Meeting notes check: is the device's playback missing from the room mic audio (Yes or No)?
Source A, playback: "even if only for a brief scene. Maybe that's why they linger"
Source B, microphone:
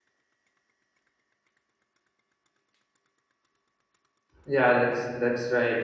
Yes